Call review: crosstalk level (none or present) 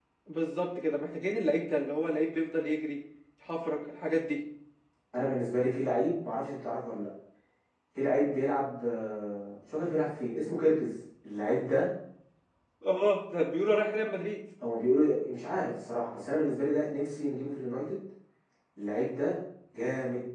none